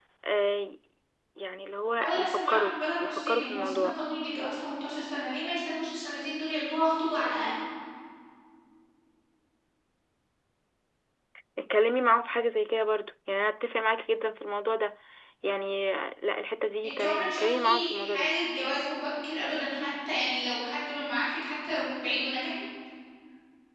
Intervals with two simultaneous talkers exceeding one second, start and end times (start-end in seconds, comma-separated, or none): 2.0-4.0, 16.8-18.3